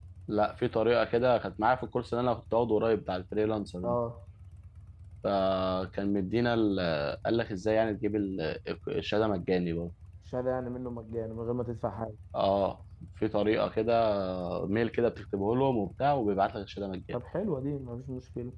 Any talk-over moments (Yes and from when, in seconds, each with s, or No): No